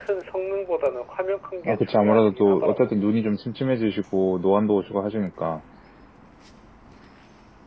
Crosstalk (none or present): present